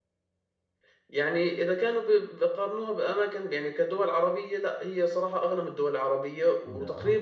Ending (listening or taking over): listening